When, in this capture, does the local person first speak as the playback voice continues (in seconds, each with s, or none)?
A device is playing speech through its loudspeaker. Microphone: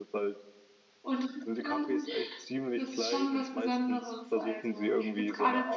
none